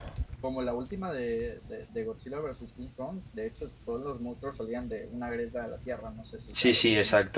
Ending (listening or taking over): taking over